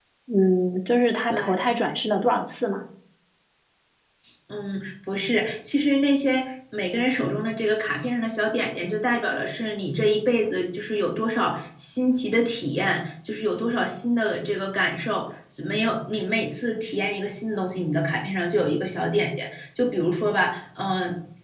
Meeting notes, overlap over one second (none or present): none